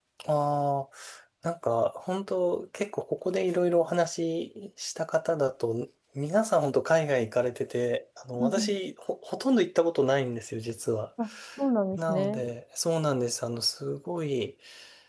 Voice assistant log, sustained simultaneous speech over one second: none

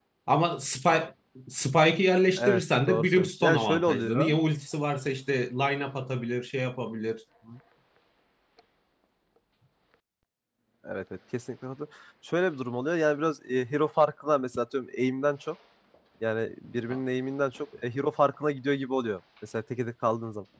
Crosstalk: present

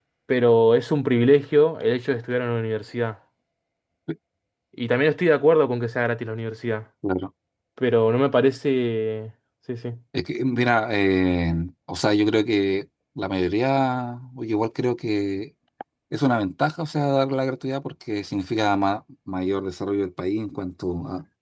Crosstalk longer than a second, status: none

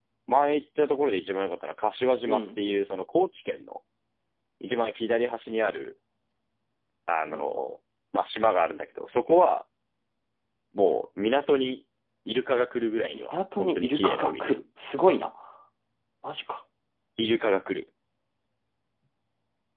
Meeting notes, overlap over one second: present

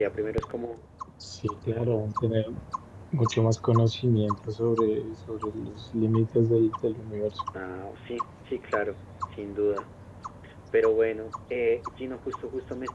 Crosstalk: none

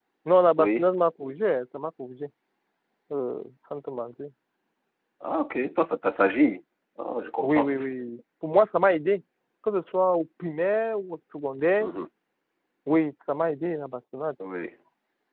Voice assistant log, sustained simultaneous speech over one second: none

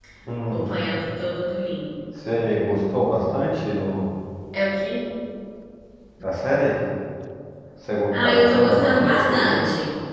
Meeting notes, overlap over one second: present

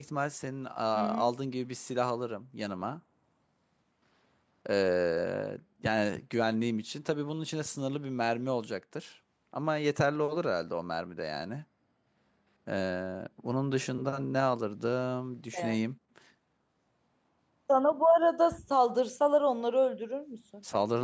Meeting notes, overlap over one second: none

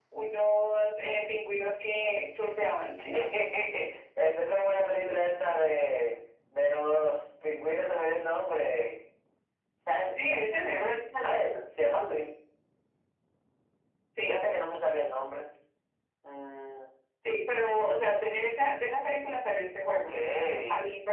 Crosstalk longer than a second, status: none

